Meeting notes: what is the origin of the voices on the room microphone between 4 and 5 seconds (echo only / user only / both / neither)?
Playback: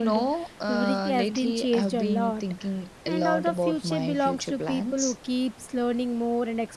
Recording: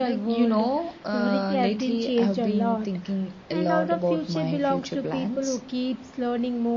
echo only